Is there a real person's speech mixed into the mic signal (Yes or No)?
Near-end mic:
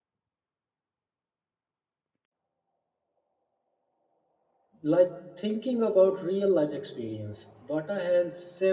Yes